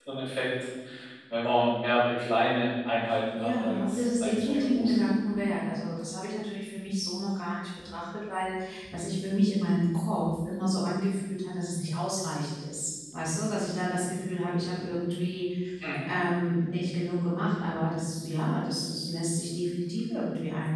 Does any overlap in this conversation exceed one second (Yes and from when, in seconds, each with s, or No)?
Yes, from 3.4 s